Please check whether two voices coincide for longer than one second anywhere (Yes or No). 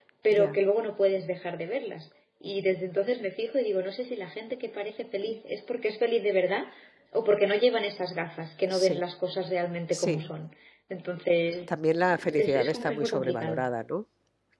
Yes